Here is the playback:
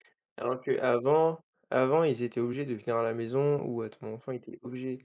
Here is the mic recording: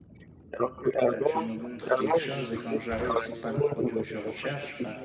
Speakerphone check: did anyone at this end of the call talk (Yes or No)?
Yes